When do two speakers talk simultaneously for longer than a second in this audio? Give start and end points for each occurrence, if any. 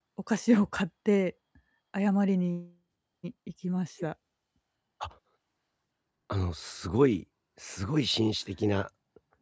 none

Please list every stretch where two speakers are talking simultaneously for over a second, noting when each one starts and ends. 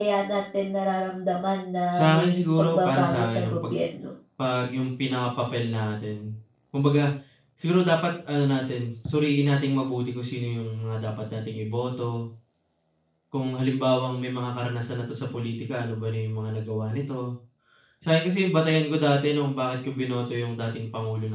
2.0-3.8

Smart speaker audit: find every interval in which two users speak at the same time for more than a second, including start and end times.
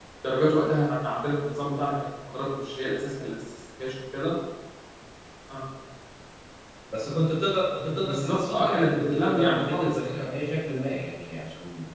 7.9-10.1

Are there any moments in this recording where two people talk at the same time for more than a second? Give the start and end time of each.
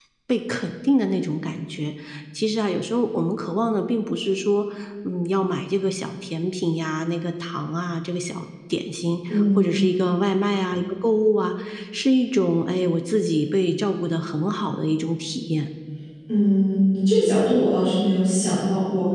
none

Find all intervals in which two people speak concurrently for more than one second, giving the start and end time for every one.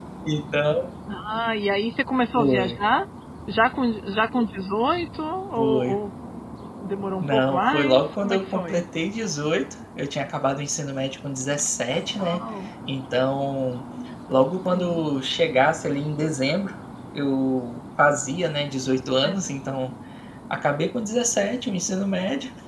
7.2-8.8

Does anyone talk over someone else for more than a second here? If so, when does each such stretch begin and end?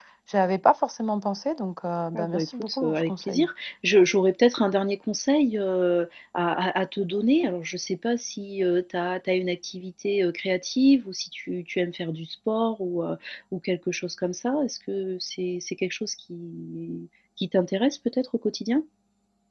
2.1-3.5

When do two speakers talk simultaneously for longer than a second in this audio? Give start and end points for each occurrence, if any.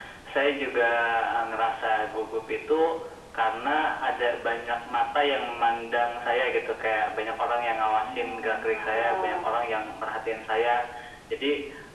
8.0-9.6

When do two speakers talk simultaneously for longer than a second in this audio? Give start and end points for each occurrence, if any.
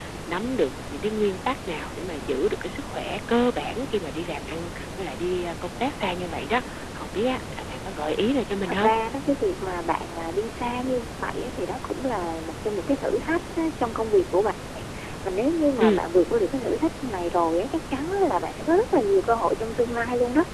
none

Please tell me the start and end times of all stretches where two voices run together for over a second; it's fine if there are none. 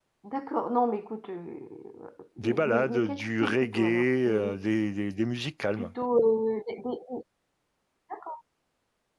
2.4-4.6

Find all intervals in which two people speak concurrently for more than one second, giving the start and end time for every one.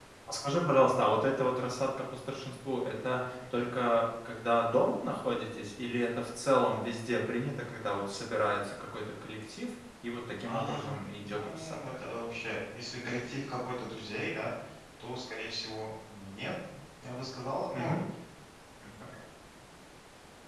10.5-11.8

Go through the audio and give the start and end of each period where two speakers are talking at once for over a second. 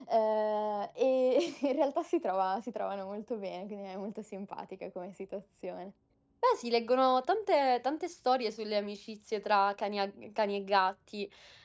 none

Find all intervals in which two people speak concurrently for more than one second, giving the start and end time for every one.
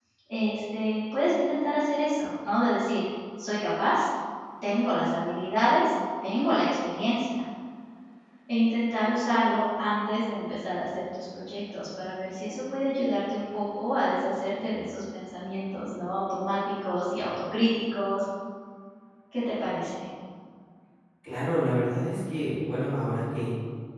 none

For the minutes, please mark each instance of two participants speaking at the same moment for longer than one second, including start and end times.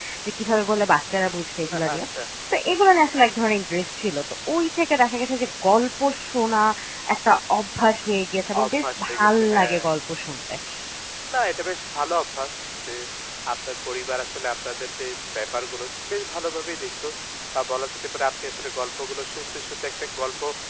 8.5-9.8

